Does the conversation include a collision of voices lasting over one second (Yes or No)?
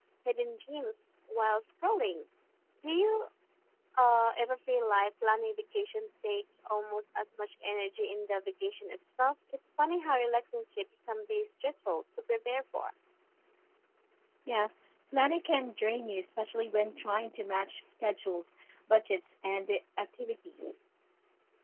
No